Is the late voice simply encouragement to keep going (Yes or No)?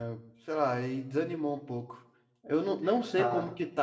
Yes